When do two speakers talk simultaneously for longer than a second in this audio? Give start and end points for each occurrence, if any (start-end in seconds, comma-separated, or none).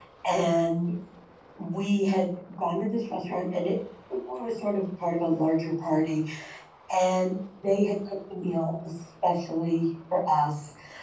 none